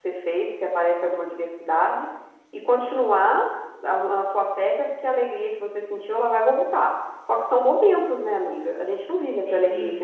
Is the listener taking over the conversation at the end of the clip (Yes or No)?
Yes